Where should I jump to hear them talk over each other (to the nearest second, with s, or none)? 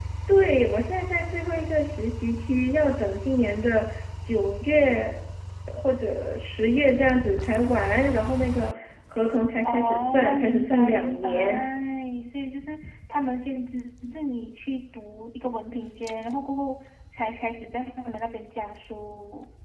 10 s